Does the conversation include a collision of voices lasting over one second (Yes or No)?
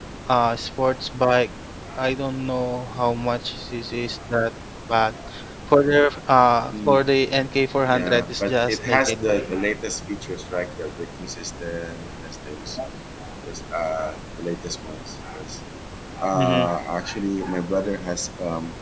Yes